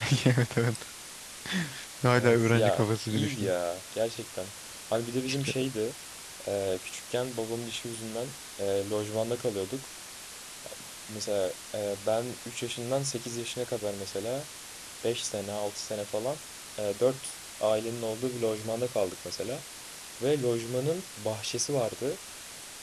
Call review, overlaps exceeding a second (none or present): present